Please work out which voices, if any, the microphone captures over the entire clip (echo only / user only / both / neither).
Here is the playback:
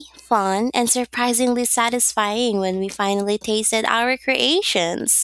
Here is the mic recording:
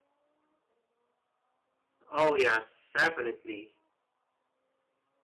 user only